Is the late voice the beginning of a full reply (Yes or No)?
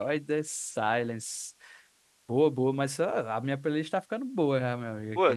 Yes